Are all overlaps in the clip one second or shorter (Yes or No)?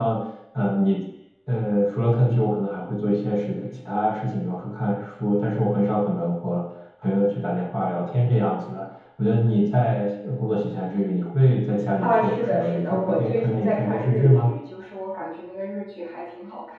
No